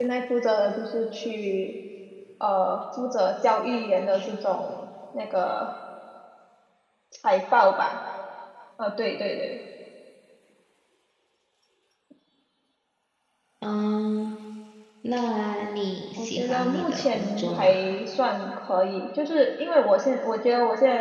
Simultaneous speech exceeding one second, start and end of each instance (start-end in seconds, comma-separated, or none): 16.2-17.7